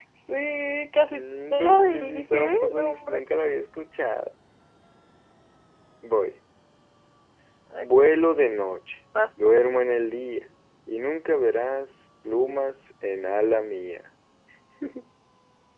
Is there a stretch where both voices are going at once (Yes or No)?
Yes